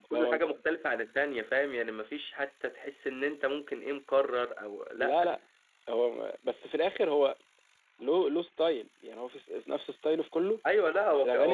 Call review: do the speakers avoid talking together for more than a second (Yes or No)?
Yes